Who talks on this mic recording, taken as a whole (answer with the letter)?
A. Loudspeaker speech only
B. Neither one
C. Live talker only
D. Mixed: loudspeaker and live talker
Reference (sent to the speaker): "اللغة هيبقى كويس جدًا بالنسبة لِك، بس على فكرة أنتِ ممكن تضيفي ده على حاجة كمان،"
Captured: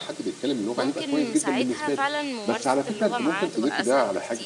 D